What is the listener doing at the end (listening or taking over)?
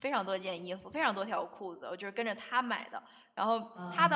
listening